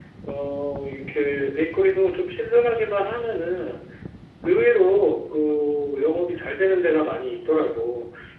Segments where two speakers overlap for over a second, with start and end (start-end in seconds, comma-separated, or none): none